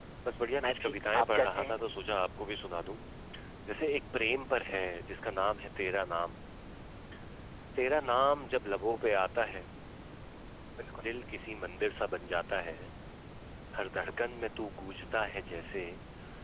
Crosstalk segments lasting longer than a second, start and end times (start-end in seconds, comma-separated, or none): 0.6-1.8